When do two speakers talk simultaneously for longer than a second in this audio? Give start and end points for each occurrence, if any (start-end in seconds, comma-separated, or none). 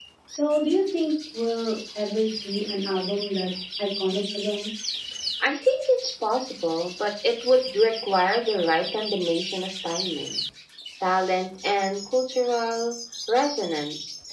none